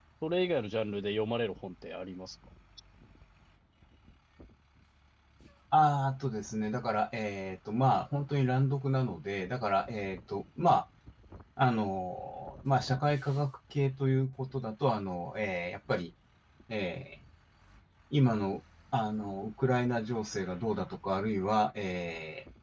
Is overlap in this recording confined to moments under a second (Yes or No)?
Yes